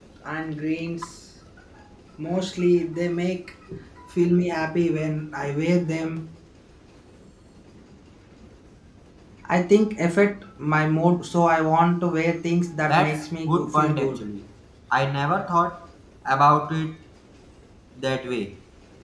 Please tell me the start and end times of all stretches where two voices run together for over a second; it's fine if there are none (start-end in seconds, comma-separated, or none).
12.9-14.2